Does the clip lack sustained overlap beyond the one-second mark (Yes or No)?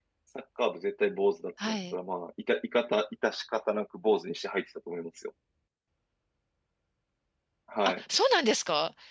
Yes